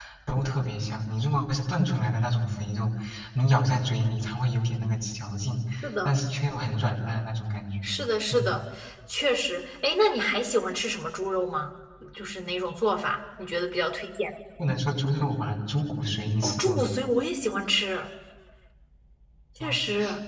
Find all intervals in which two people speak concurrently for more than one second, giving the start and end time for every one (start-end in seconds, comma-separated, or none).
none